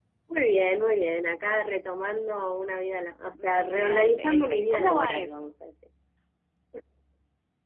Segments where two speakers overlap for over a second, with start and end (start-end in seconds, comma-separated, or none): 3.3-5.5